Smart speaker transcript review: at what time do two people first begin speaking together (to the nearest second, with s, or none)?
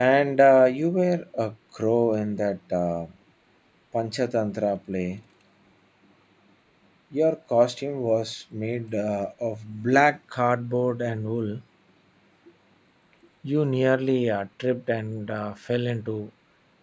none